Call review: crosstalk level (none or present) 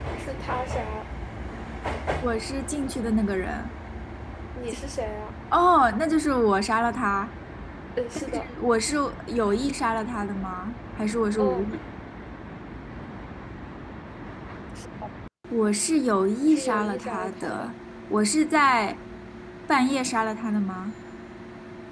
present